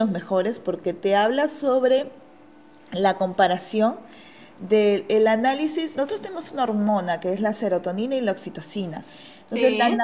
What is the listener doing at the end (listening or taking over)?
listening